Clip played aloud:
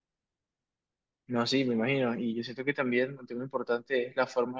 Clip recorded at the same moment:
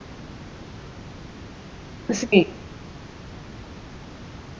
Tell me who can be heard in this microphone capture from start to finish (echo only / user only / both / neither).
user only